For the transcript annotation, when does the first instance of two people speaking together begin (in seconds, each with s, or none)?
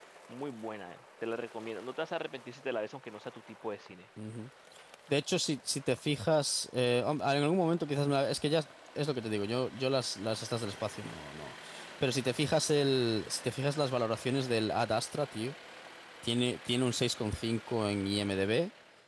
none